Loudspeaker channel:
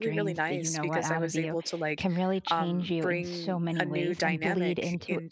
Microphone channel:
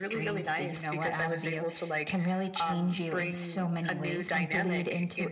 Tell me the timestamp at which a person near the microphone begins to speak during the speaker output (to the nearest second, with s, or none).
none